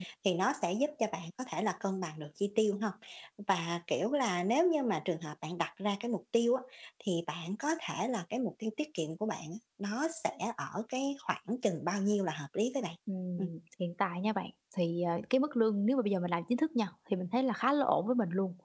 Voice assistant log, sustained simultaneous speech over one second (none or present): none